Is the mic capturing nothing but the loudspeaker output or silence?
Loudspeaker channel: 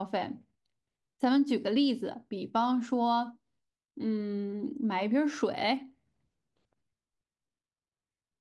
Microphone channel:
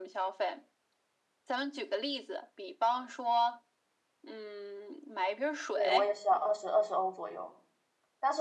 No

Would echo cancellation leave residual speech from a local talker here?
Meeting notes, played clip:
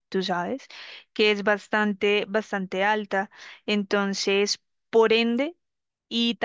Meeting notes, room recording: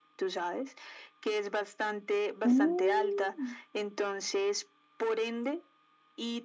Yes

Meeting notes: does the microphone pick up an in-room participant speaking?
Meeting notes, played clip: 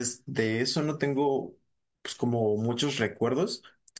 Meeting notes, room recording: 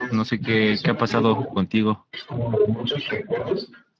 Yes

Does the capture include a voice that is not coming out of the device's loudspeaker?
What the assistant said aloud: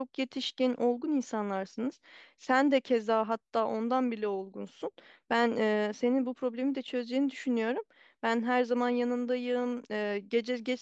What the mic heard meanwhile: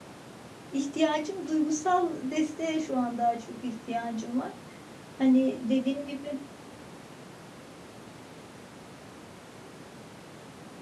Yes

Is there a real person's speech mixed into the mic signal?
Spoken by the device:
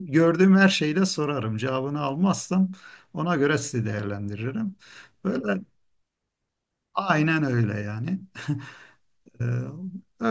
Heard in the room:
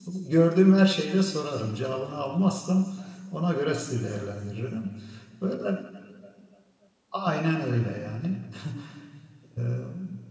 No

